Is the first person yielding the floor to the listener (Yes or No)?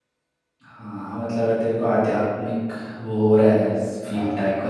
No